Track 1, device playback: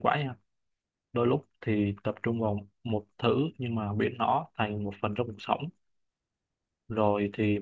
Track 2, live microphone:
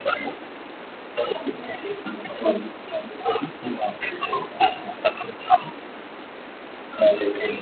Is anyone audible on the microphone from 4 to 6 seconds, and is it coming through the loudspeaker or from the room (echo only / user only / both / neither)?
echo only